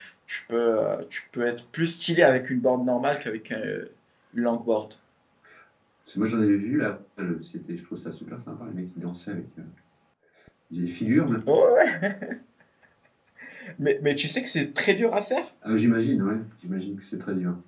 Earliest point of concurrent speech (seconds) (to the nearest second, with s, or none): none